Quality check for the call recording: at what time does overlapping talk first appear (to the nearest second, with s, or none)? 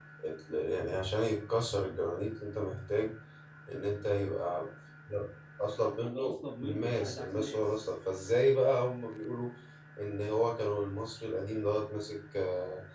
6 s